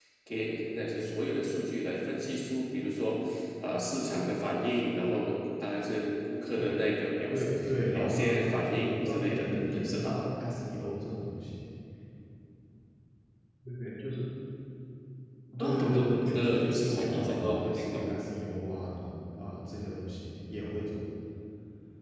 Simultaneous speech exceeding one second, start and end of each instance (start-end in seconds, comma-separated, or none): 7.9-10.2, 15.6-18.1